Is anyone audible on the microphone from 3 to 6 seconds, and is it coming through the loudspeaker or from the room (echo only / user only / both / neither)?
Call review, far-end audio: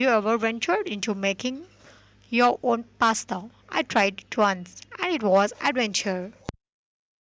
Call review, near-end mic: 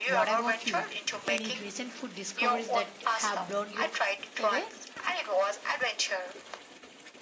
both